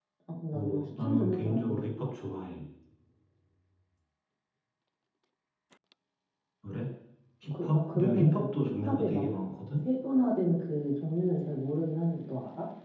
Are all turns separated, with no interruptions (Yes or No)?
No